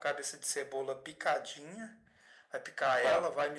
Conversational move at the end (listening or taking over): listening